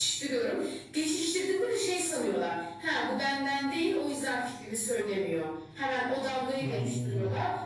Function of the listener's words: listening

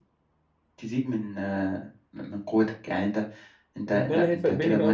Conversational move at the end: taking over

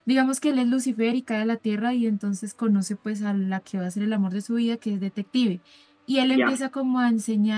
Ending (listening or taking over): listening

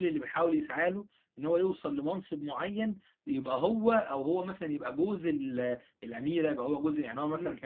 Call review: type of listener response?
taking over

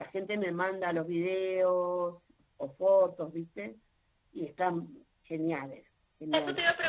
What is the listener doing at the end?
taking over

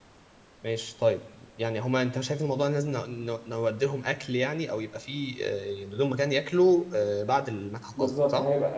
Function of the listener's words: taking over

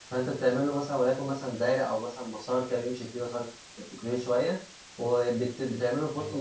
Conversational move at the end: listening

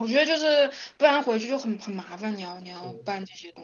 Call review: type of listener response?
taking over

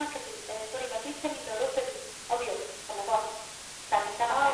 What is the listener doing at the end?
taking over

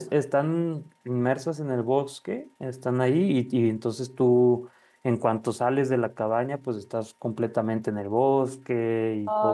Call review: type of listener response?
taking over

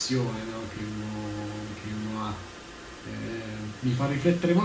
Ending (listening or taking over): listening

